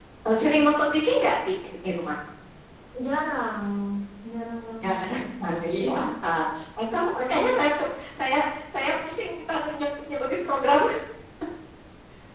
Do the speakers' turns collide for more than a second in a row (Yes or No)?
No